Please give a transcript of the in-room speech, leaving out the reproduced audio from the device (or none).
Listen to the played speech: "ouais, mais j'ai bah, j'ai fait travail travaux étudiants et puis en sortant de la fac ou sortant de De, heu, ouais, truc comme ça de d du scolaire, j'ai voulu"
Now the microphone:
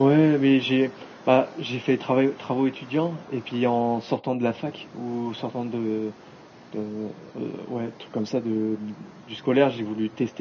none